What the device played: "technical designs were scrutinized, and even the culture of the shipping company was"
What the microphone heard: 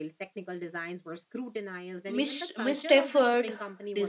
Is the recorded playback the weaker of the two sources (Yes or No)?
Yes